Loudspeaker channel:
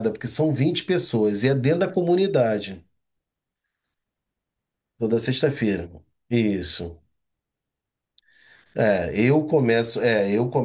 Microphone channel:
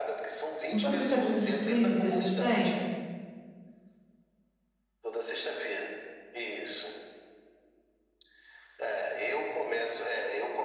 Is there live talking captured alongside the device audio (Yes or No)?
Yes